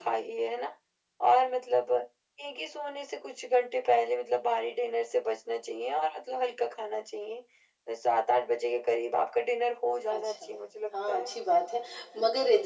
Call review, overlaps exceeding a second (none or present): none